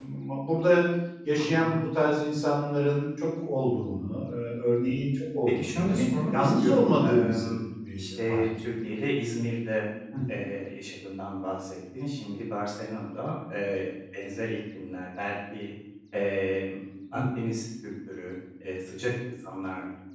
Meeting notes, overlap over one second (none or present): present